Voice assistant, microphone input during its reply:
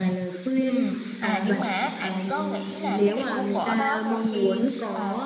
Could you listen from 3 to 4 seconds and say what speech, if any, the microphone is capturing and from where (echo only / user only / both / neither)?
both